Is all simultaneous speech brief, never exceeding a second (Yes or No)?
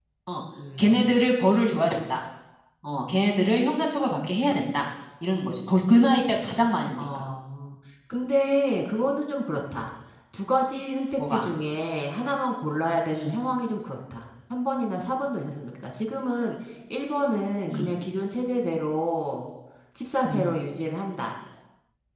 Yes